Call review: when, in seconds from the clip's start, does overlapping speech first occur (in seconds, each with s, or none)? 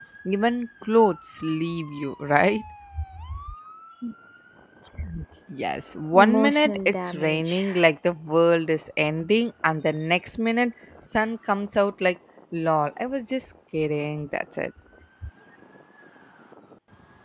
6.1 s